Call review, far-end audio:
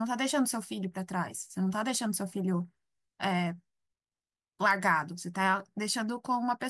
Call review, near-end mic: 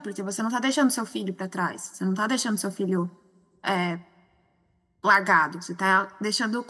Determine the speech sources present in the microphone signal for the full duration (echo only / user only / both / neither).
echo only